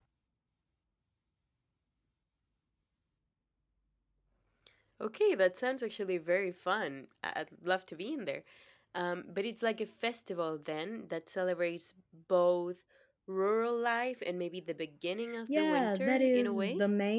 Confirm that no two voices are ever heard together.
No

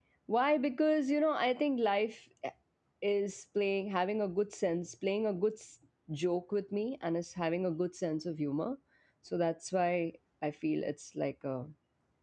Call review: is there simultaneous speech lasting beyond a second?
No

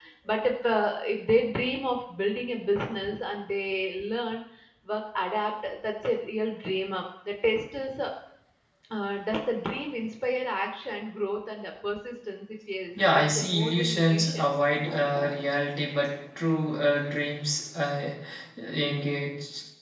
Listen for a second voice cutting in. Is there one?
Yes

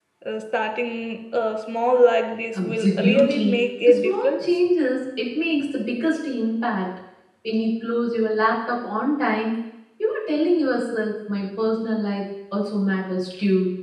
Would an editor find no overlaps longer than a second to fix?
No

